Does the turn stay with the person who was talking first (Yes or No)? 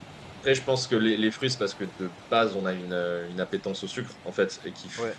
Yes